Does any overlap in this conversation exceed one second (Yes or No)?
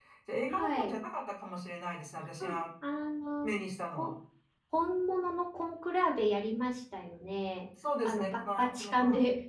Yes